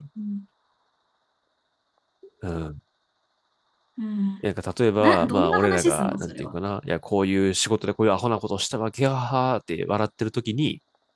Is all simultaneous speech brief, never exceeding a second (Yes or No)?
No